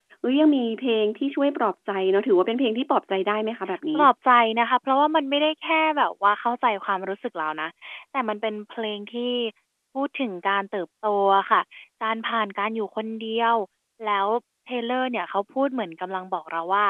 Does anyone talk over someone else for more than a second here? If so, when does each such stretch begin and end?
none

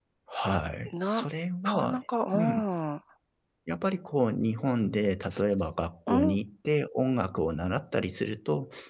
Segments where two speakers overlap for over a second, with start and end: none

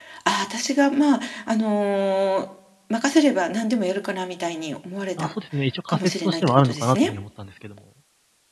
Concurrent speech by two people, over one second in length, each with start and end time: 5.9-7.1

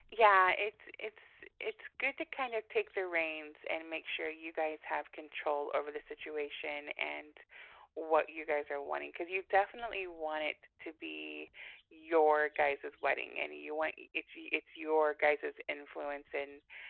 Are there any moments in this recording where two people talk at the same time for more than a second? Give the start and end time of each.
none

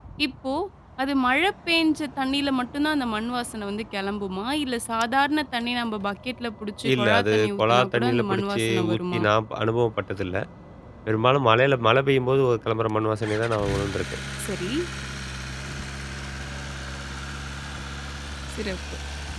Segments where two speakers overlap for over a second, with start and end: 6.9-9.2

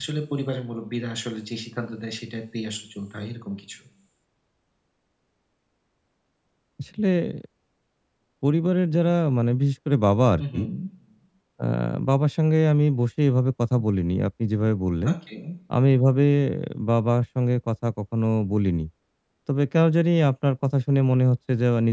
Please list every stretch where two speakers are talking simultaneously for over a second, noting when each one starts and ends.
none

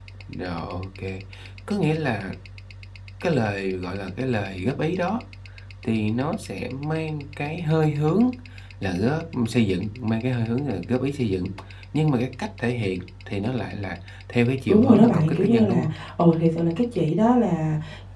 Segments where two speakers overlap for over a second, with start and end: 14.7-15.9

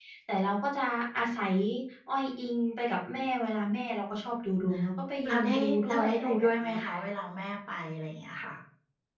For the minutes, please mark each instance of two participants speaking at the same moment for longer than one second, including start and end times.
5.3-7.0

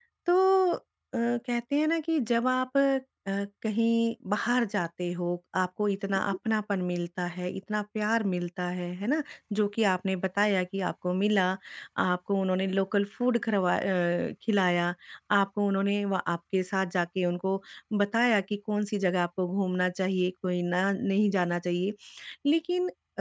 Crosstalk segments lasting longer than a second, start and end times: none

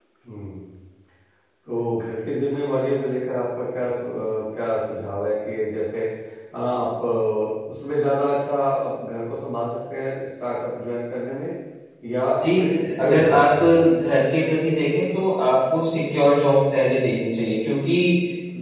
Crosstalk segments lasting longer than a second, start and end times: 12.4-13.6

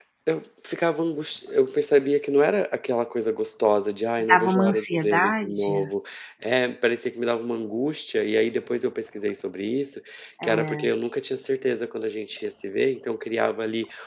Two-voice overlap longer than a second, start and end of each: 4.2-5.7

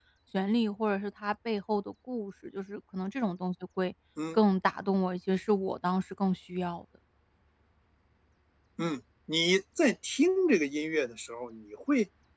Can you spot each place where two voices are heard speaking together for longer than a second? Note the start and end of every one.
none

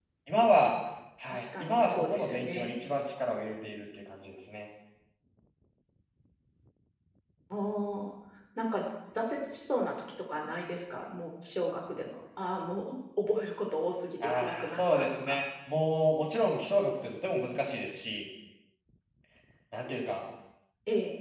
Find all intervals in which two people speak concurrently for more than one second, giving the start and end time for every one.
1.3-2.7, 14.2-15.4

